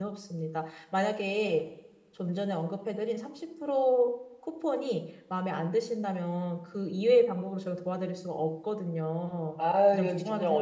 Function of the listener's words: taking over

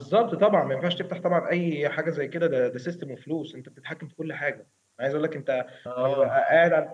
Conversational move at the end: listening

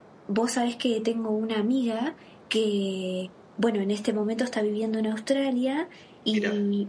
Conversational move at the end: listening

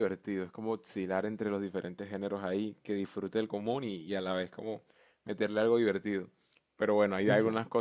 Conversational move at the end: listening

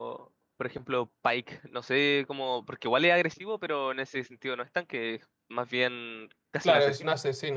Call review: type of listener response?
taking over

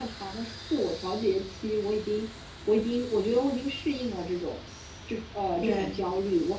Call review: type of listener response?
listening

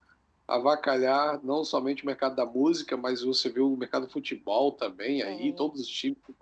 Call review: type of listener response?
listening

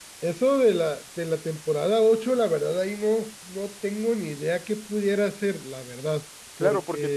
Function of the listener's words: taking over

